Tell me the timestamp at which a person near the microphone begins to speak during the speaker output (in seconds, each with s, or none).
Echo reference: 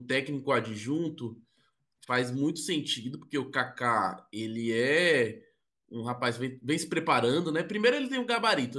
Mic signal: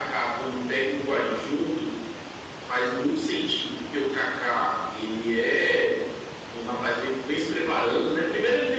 none